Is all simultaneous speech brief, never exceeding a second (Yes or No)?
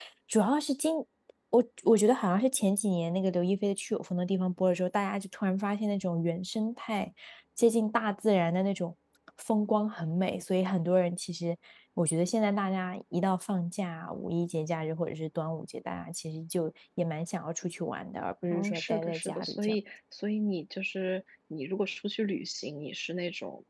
No